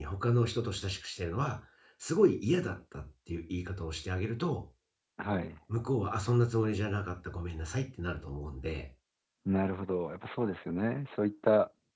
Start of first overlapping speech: none

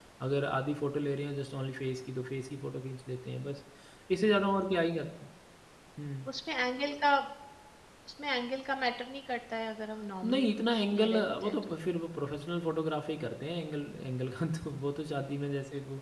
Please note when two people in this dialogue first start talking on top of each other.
10.2 s

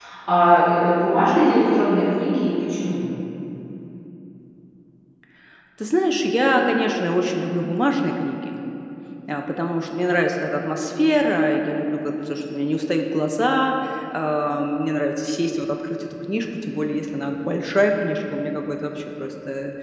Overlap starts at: none

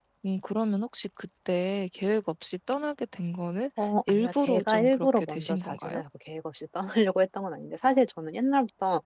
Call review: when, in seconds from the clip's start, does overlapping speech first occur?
4.1 s

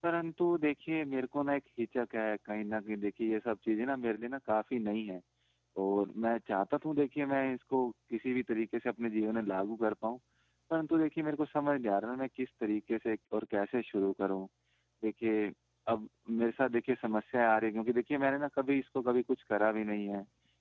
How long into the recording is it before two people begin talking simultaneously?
none

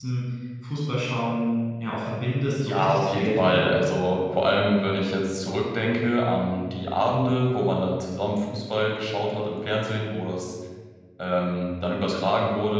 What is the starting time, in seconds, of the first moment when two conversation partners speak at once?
2.6 s

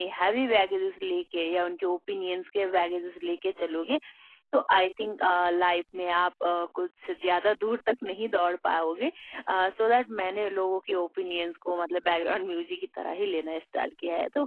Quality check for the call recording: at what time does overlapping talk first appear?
none

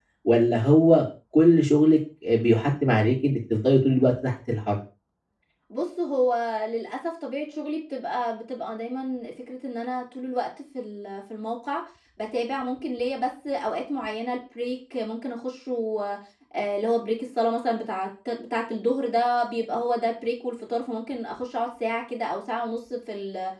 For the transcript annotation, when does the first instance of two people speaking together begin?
none

